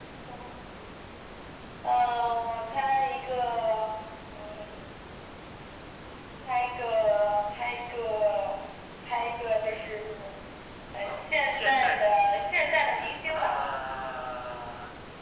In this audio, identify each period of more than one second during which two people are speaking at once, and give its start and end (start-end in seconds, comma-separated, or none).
11.0-12.5